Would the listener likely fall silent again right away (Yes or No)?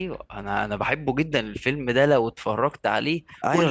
No